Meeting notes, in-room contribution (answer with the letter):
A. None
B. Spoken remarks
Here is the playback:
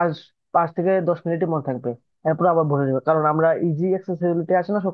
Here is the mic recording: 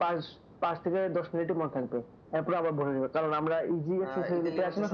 B